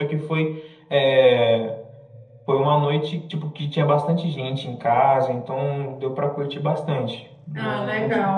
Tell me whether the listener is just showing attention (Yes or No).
No